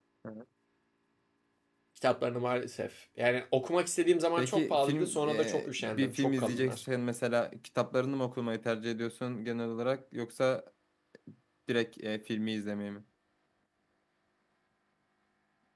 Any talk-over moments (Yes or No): Yes